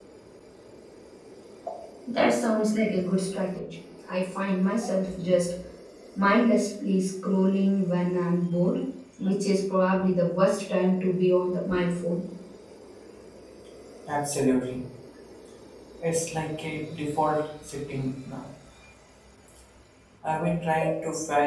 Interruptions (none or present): none